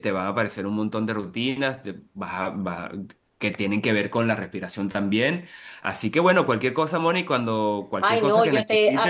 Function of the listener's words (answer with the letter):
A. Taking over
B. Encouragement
A